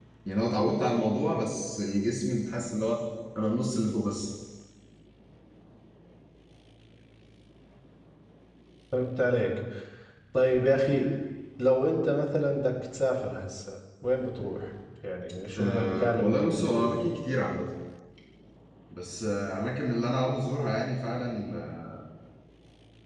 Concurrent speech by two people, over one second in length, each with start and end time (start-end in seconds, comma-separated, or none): 15.6-17.0